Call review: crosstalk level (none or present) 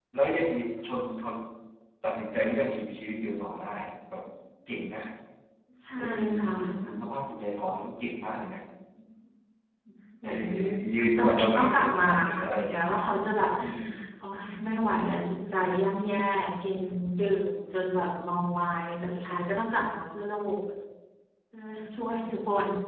present